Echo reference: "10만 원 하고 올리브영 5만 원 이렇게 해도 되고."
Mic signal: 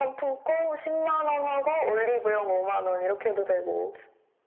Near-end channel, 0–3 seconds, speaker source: echo only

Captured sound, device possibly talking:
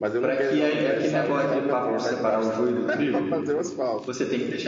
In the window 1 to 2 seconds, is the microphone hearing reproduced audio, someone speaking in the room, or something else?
both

